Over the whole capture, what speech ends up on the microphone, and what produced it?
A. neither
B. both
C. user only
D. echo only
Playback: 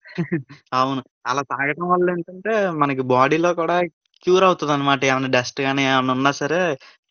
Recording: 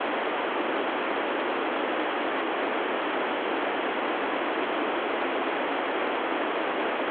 A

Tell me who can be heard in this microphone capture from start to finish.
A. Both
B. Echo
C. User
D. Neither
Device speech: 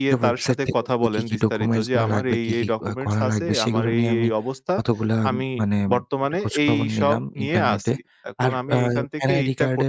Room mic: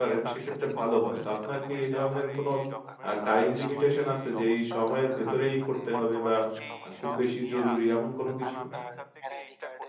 A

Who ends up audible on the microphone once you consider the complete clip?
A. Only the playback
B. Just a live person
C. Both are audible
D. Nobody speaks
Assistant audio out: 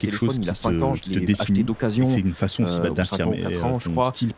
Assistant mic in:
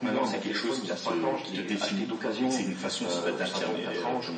A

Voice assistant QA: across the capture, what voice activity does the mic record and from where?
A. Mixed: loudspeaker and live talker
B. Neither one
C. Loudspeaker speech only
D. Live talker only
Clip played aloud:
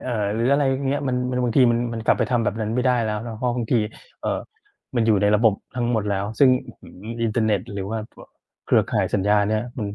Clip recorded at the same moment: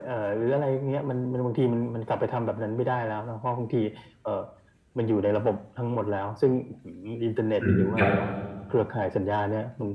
A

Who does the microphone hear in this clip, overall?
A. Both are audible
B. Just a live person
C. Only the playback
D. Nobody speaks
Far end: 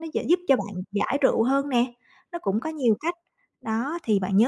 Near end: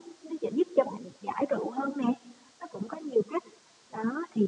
C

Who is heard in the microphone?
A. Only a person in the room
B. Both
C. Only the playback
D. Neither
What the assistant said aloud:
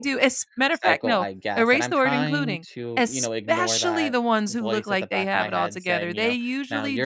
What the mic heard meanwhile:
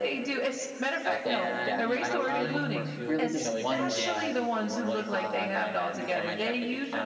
B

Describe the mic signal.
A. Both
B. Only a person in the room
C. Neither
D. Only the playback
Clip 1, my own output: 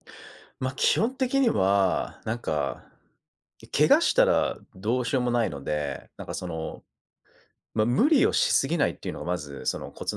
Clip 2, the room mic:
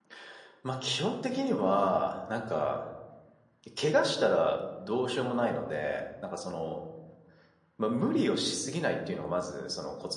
D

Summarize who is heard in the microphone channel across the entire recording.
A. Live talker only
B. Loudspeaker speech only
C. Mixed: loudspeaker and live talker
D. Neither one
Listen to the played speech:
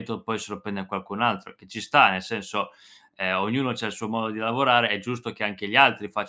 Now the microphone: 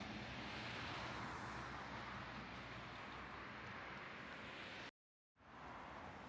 D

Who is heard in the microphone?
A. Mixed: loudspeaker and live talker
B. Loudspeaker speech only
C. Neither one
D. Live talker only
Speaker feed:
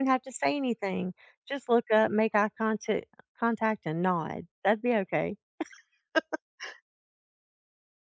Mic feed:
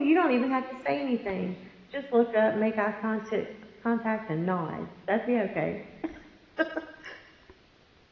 B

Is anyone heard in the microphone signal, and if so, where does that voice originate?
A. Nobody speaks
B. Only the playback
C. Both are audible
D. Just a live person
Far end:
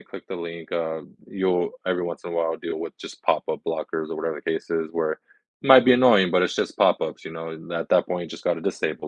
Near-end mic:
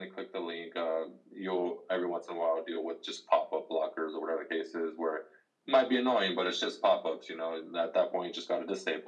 B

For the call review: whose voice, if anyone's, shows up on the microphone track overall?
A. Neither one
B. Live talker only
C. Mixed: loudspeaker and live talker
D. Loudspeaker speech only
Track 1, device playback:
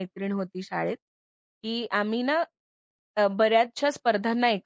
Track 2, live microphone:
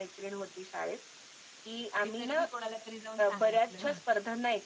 C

